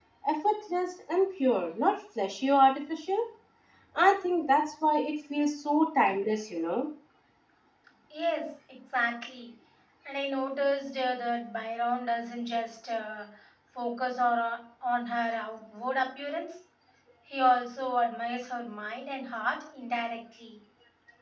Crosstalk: none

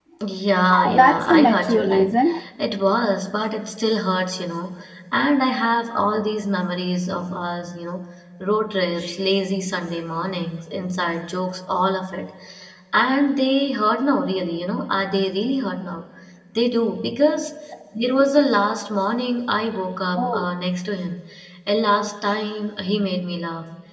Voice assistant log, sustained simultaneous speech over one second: present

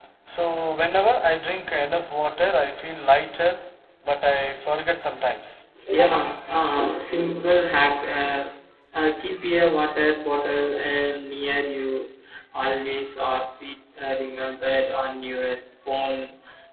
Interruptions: none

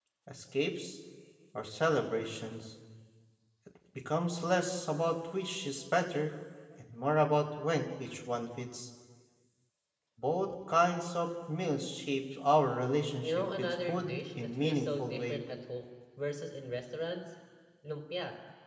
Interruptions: present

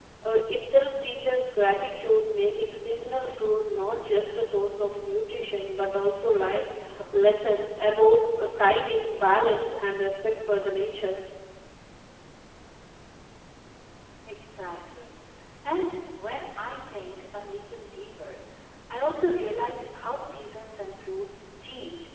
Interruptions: none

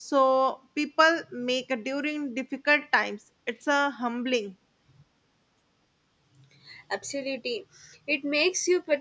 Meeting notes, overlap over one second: none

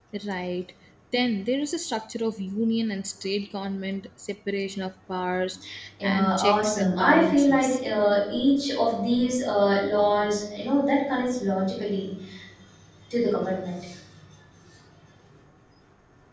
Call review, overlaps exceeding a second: present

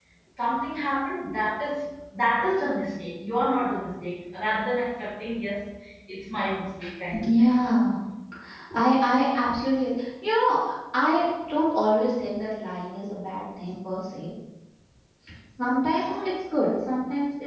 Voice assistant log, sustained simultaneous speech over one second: none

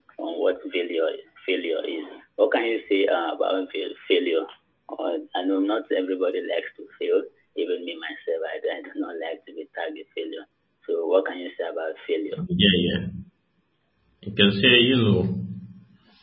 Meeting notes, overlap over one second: none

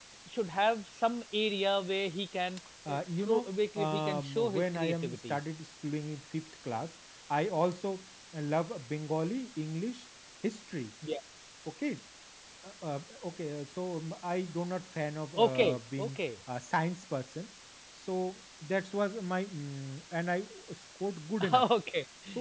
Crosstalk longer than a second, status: present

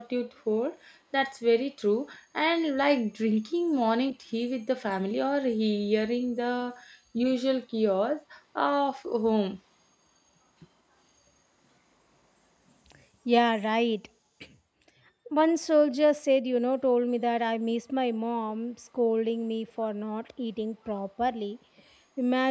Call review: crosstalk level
none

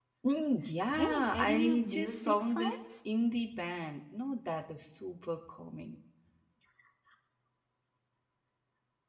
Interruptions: present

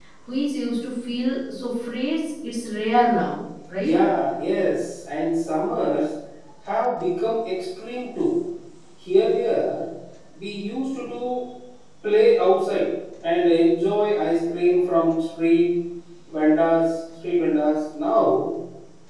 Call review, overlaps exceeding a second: none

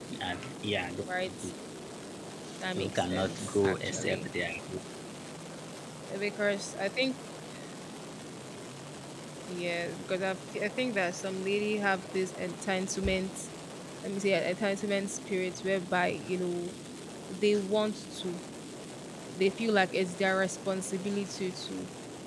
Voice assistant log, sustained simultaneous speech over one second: present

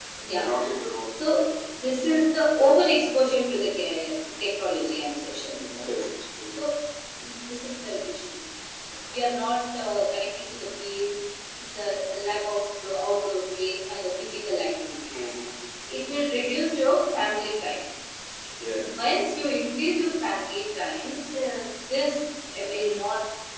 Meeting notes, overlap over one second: none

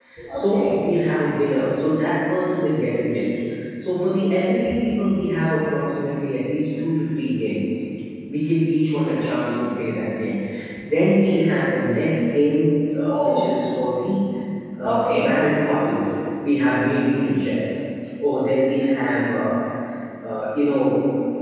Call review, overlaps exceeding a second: none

